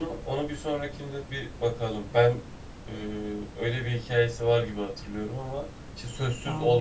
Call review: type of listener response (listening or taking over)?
listening